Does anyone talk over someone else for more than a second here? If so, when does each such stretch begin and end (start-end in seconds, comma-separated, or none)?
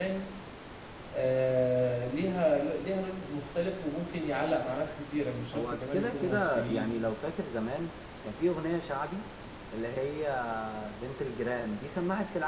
5.5-7.0